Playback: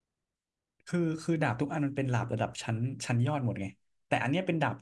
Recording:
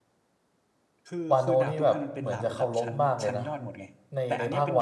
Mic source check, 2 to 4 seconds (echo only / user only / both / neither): both